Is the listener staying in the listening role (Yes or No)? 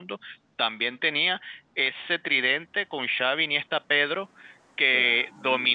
Yes